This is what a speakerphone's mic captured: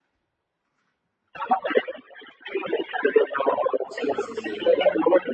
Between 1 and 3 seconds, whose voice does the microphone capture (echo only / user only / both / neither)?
echo only